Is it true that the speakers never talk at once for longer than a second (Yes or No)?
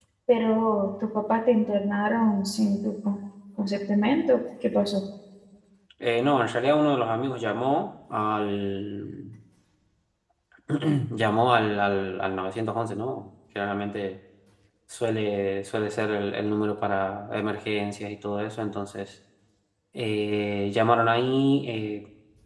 Yes